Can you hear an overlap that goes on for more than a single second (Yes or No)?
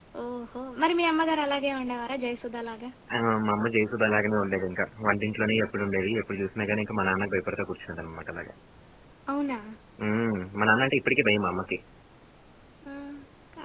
No